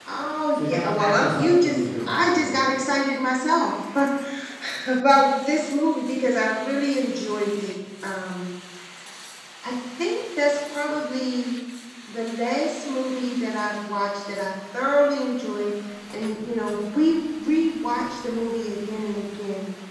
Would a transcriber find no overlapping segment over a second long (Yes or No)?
No